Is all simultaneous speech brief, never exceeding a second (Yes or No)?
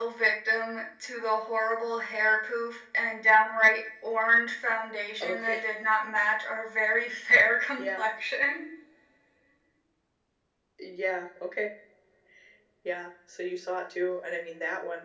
Yes